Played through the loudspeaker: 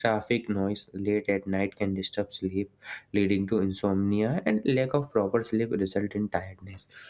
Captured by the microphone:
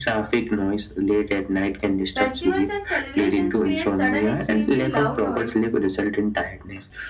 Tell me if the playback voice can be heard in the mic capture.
Yes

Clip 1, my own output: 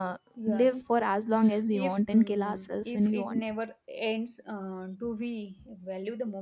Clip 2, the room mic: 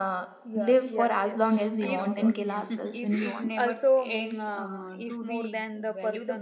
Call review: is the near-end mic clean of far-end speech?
No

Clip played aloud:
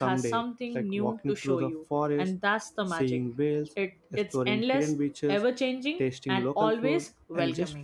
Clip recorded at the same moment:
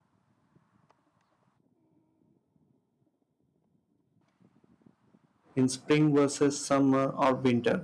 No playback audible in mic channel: Yes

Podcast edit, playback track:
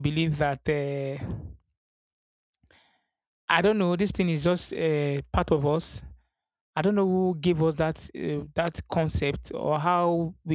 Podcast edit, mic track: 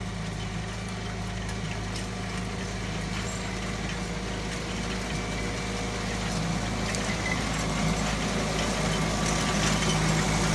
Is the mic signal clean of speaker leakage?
Yes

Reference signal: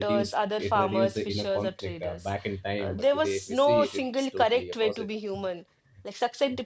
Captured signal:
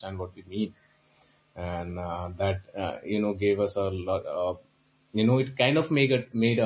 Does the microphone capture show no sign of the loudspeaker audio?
Yes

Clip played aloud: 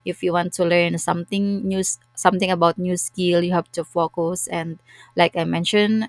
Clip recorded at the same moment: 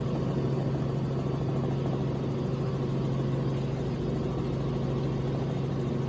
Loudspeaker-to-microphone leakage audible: No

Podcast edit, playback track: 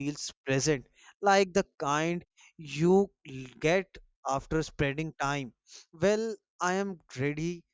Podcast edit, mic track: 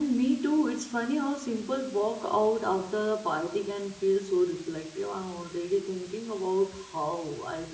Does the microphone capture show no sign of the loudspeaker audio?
Yes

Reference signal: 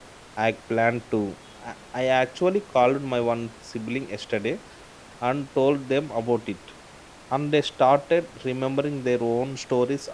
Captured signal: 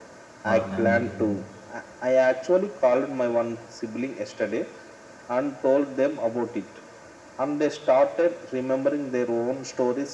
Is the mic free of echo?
No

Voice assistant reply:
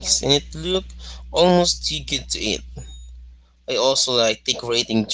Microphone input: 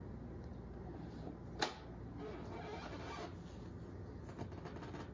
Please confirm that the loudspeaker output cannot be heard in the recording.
Yes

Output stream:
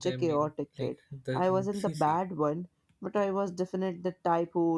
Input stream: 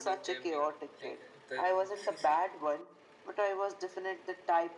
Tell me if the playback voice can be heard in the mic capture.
Yes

